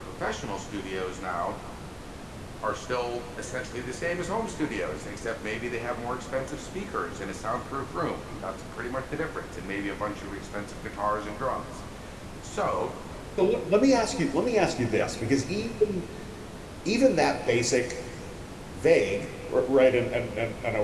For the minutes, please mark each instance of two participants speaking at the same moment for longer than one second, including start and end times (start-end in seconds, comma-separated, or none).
none